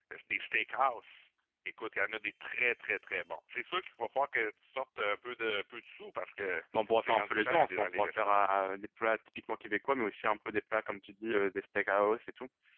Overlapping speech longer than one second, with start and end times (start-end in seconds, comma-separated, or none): 7.0-8.5